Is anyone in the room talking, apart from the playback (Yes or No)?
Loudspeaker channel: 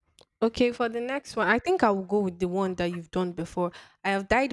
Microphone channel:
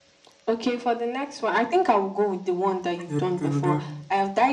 Yes